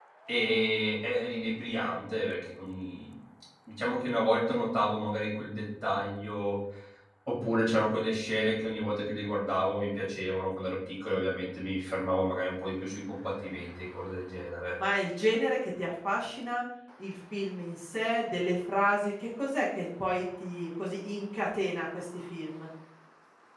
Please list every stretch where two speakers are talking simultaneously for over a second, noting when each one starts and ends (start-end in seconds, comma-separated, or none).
none